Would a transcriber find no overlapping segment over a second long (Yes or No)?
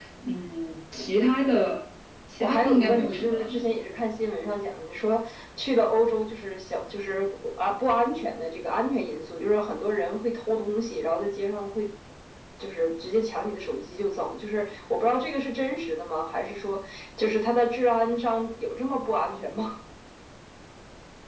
No